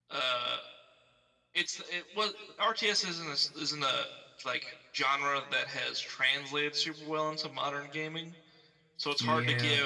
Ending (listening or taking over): listening